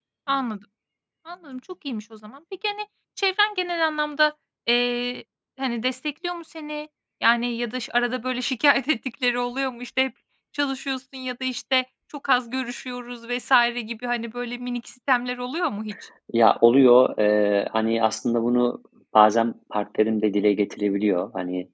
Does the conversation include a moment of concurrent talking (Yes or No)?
No